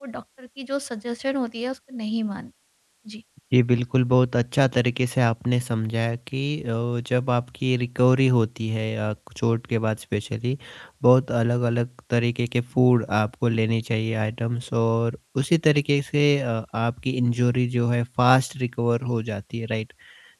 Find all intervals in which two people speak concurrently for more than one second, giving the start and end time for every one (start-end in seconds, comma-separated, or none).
none